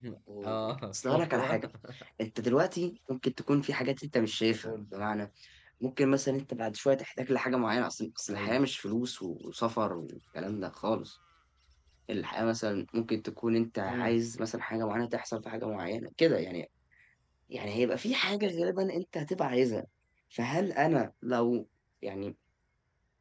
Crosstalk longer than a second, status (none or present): present